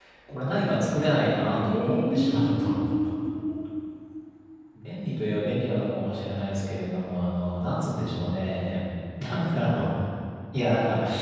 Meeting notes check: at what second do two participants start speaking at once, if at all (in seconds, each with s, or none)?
1.5 s